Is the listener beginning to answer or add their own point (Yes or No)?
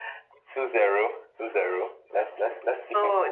Yes